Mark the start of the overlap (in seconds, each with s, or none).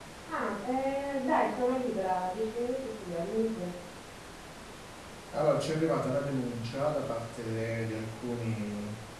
none